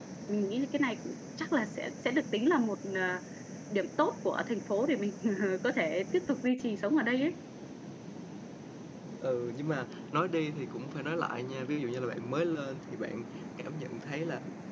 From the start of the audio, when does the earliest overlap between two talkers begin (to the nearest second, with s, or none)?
none